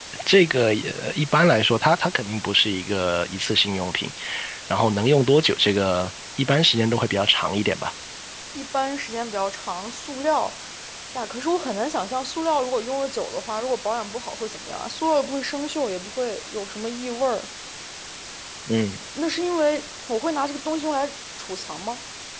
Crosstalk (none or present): none